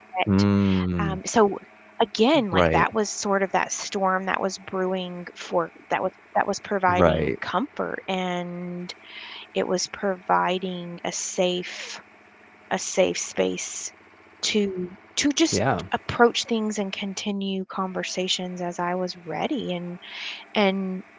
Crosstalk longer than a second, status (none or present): none